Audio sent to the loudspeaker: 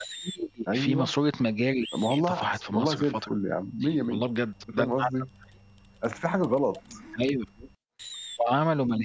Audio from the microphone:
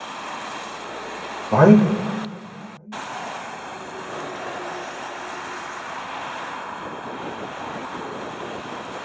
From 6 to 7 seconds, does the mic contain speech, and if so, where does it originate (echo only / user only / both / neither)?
neither